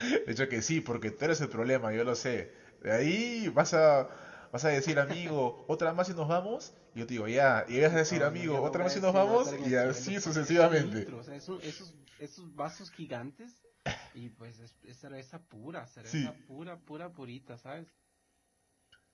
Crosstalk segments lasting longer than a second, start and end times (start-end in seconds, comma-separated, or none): 7.9-11.1